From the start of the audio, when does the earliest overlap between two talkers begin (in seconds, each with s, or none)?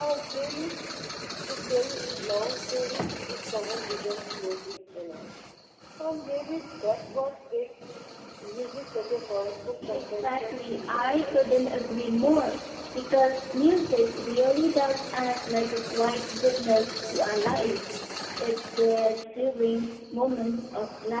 9.7 s